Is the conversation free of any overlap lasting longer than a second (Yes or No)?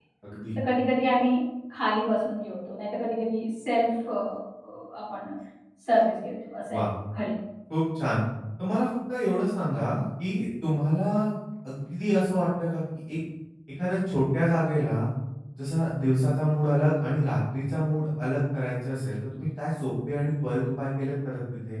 Yes